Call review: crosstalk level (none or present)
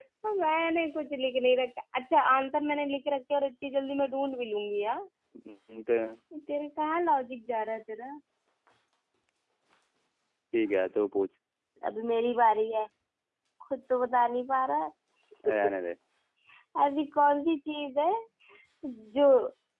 none